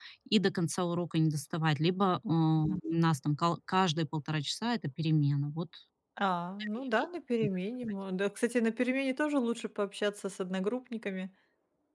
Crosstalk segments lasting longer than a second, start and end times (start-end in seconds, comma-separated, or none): none